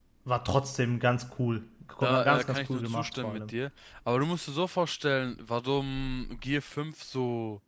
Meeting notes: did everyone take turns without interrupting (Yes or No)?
No